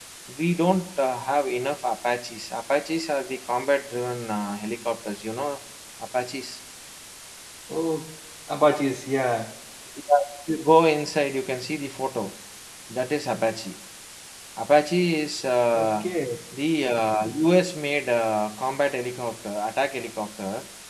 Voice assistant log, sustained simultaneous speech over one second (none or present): none